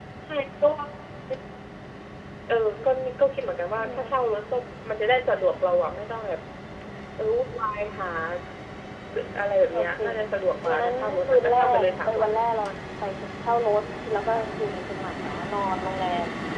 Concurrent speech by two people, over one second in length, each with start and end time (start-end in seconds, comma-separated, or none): 10.7-12.3